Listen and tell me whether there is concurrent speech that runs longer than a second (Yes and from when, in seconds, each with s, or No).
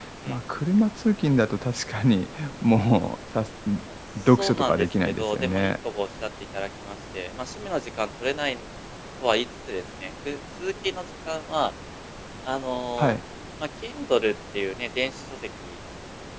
Yes, from 4.2 s